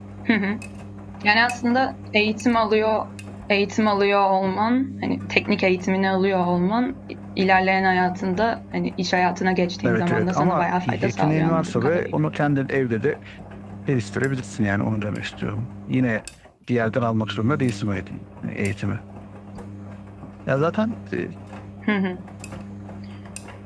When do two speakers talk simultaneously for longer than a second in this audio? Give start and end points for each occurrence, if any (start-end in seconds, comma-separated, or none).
9.8-12.0